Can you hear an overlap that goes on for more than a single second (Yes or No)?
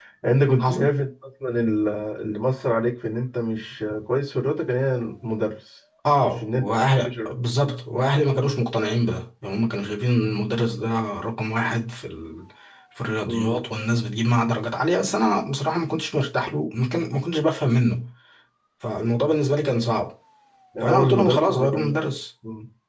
Yes